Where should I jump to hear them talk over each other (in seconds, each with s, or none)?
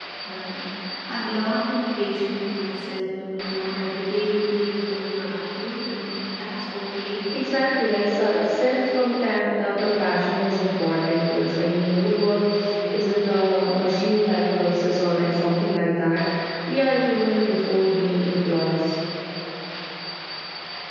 none